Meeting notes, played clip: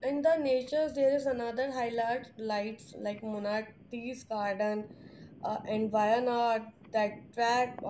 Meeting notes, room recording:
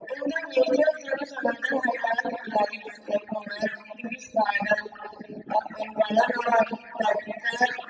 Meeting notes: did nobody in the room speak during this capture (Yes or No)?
Yes